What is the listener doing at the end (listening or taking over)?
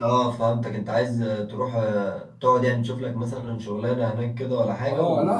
taking over